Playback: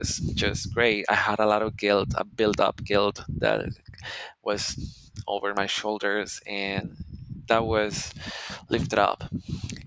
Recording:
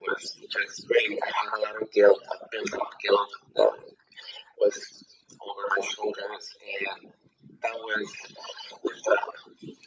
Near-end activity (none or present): none